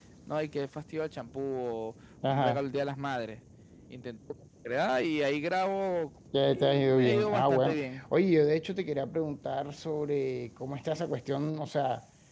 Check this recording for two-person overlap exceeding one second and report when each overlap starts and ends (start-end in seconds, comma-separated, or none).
6.3-8.0